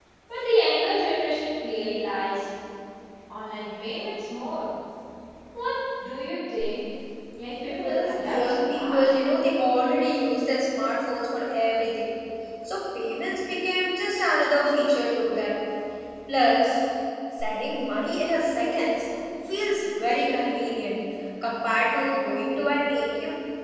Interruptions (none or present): present